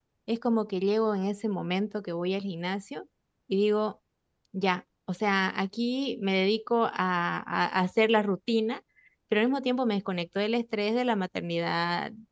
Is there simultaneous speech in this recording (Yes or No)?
No